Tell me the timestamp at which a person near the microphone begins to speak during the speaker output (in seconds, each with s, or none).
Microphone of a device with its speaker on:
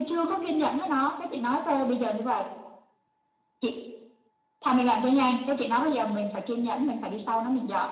none